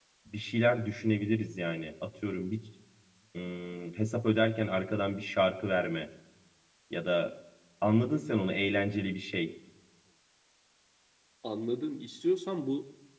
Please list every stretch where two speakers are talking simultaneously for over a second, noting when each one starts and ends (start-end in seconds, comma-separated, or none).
none